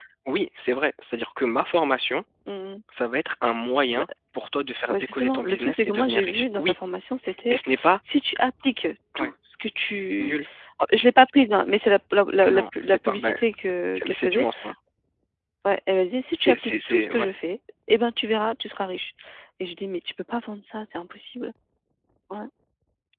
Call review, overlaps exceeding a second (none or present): present